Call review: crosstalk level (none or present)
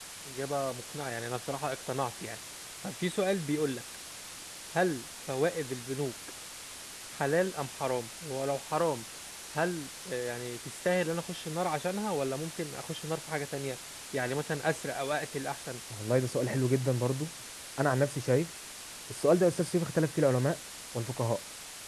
none